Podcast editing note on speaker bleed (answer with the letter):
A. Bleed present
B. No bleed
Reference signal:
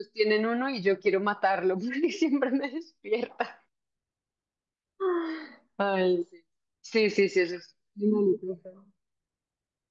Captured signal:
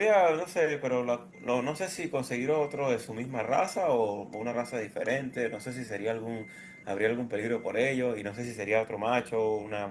B